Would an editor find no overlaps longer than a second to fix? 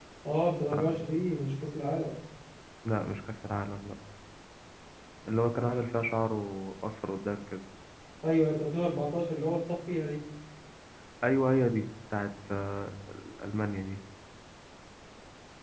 Yes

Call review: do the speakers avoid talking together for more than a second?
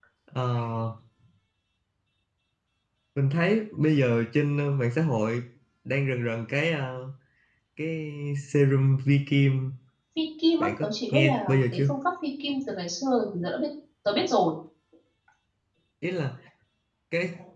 No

